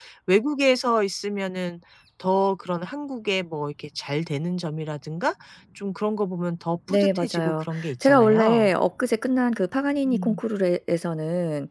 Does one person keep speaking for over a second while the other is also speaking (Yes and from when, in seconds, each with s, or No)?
Yes, from 6.9 s